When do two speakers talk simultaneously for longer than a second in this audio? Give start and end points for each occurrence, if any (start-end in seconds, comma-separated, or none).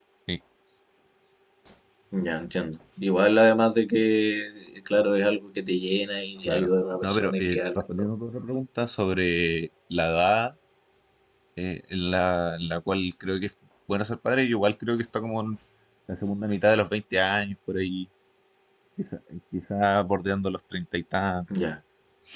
6.5-8.1